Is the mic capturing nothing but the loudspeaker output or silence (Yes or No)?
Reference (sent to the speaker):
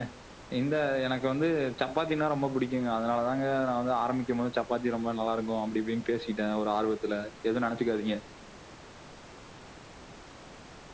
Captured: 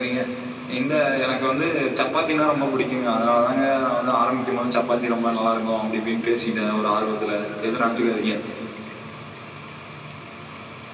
Yes